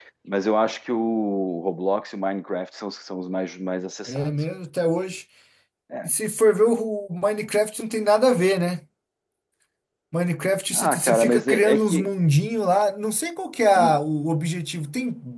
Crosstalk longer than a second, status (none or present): present